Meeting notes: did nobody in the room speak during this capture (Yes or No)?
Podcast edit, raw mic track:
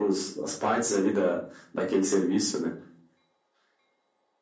Yes